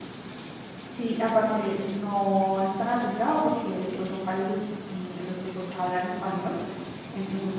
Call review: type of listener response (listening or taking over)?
listening